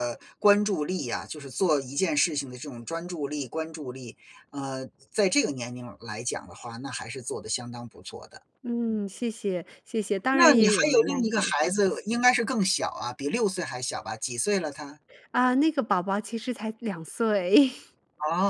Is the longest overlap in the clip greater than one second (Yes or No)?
Yes